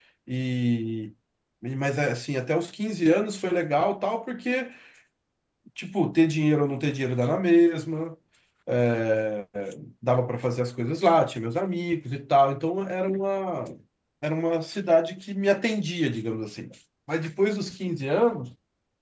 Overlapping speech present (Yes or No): No